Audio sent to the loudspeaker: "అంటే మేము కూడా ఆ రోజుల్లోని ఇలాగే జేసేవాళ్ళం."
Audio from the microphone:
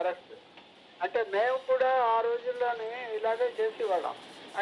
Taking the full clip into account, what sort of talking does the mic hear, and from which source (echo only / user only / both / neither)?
echo only